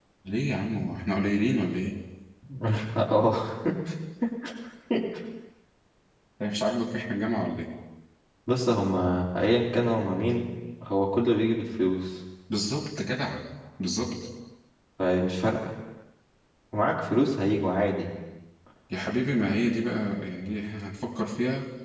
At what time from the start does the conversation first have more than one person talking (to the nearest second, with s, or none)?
none